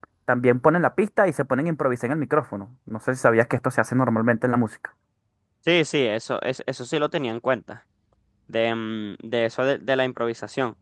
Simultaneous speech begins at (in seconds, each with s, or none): none